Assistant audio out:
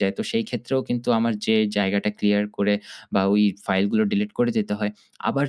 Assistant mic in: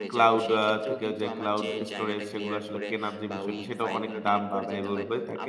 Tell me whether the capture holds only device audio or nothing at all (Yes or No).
No